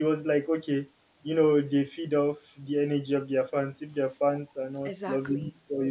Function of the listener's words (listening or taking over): listening